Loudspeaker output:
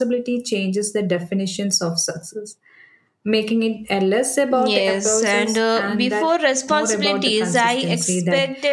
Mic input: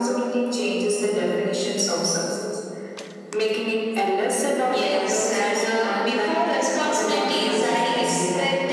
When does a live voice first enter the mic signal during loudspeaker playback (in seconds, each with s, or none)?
none